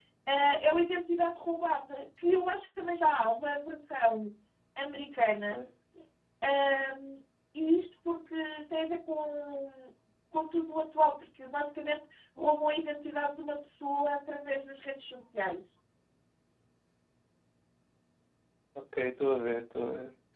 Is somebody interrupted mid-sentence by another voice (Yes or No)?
No